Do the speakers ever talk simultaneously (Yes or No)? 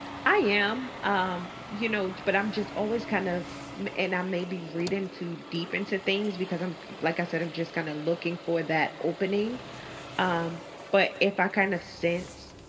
No